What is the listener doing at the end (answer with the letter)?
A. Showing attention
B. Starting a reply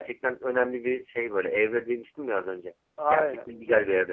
B